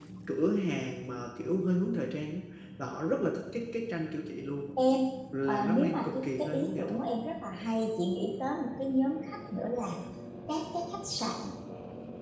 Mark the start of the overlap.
5.5 s

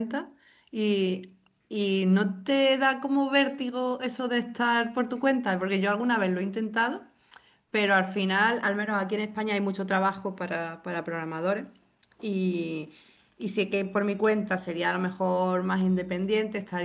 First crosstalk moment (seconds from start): none

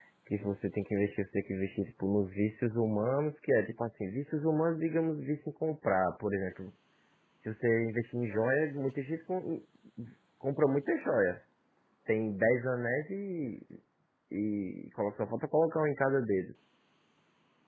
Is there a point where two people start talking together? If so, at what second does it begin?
none

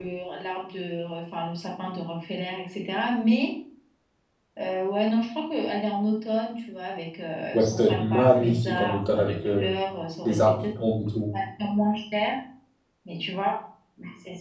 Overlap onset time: 7.5 s

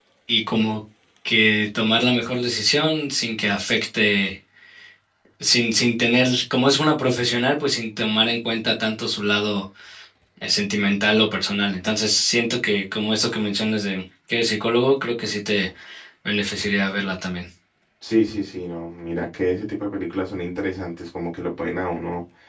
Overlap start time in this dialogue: none

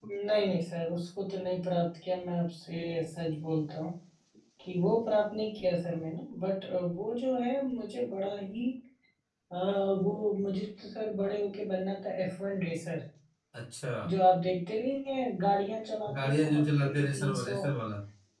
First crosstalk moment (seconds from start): 16.1 s

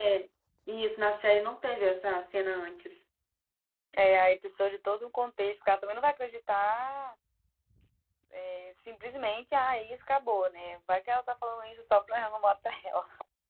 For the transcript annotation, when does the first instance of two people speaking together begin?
none

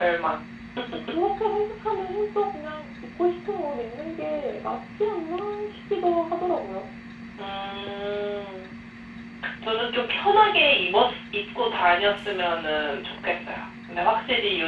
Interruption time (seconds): none

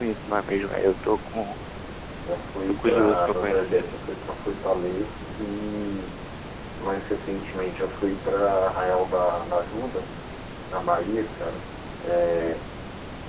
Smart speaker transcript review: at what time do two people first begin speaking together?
2.6 s

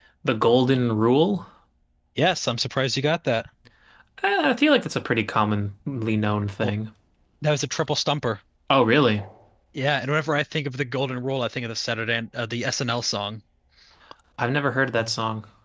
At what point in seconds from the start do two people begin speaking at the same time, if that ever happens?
none

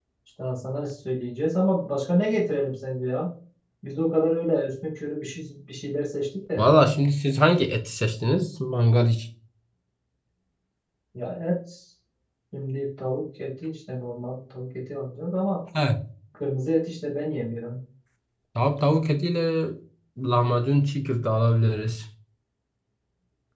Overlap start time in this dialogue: none

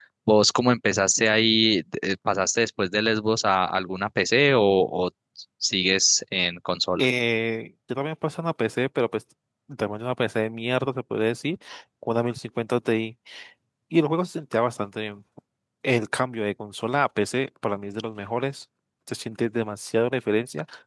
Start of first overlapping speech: none

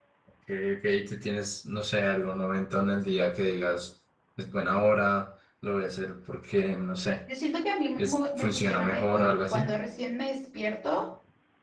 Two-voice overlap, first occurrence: 8.0 s

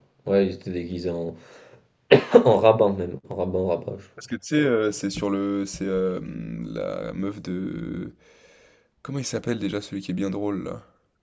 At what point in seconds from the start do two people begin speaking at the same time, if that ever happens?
none

